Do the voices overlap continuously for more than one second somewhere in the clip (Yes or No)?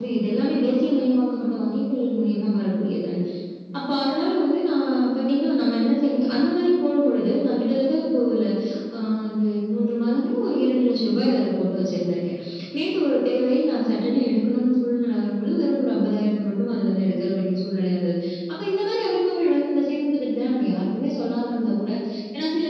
No